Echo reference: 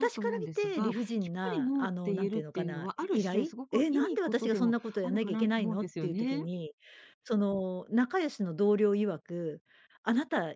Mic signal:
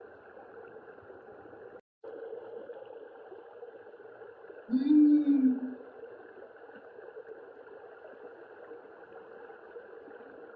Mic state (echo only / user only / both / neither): user only